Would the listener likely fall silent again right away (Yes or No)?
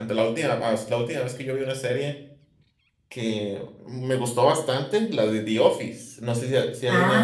No